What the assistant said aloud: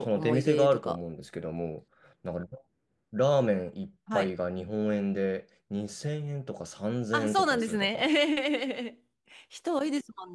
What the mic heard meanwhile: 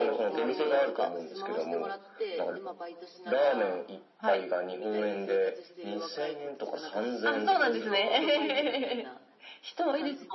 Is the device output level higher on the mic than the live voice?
Yes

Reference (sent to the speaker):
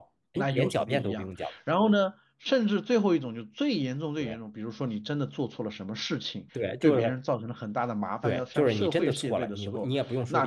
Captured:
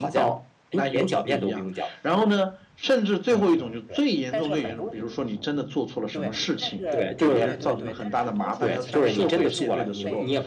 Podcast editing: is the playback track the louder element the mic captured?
Yes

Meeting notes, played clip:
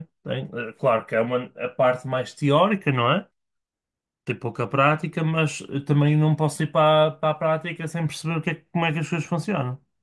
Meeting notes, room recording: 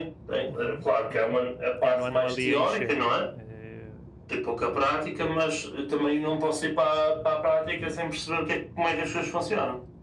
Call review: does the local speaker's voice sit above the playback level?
No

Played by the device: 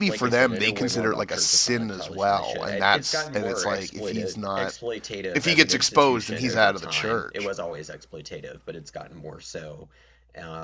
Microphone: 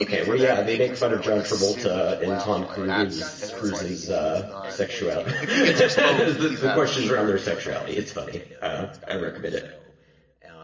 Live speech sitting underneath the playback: No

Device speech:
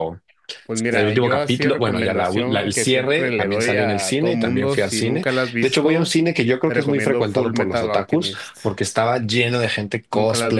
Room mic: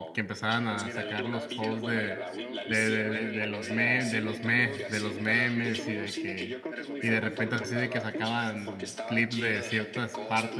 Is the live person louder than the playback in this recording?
Yes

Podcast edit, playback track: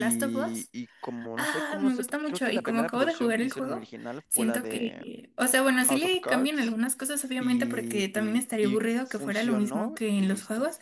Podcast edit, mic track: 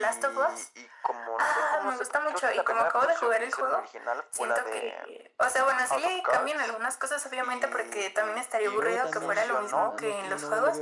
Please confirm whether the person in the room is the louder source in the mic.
No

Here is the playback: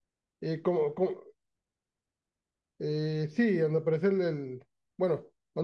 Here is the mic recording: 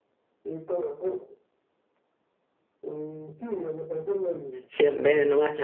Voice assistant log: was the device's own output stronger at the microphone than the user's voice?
No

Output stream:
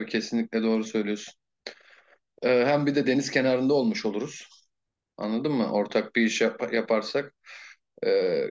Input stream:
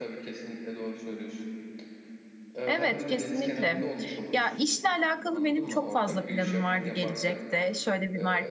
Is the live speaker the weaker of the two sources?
No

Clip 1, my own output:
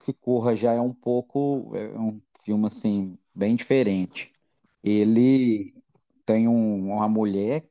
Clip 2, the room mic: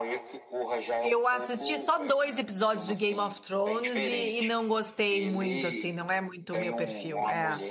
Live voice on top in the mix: Yes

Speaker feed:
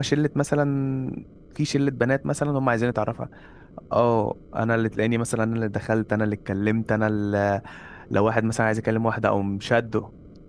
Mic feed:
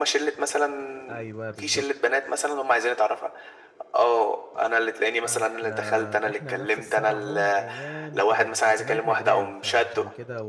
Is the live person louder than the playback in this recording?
No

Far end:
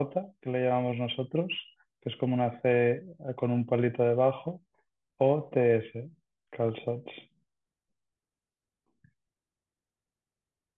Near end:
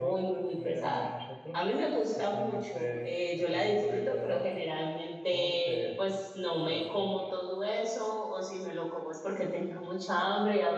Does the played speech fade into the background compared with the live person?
Yes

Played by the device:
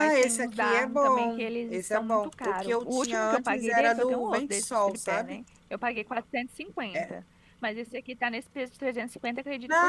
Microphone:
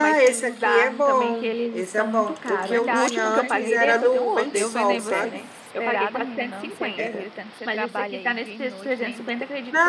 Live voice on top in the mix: No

